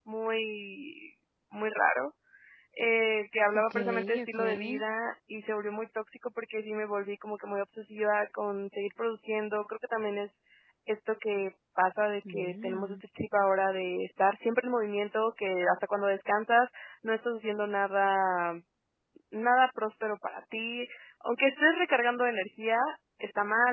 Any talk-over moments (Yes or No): Yes